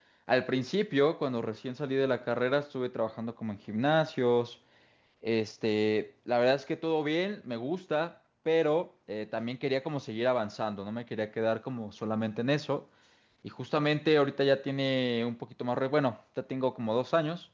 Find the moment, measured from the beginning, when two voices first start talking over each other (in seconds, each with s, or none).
none